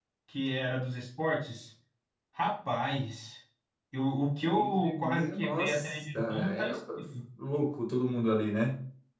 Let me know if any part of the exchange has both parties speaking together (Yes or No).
Yes